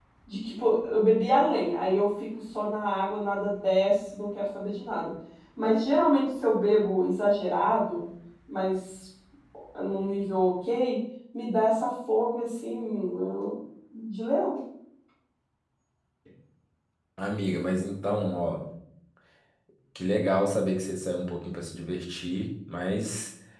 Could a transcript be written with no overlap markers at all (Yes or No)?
Yes